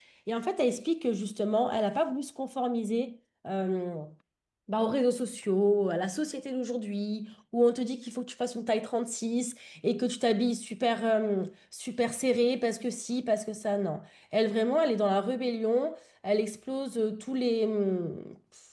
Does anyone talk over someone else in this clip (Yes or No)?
No